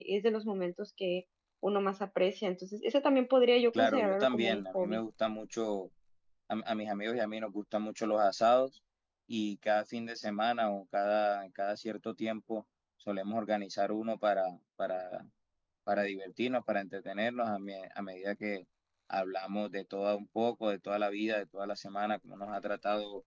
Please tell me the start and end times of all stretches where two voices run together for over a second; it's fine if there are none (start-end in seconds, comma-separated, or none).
3.7-5.0